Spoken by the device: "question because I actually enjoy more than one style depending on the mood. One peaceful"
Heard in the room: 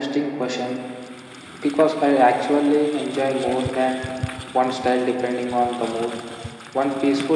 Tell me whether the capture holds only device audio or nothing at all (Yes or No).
Yes